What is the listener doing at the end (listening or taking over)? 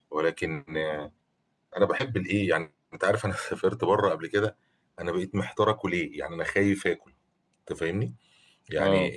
listening